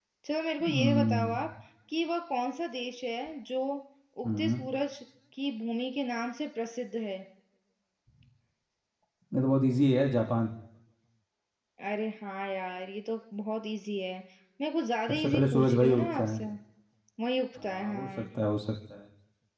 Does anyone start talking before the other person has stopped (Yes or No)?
Yes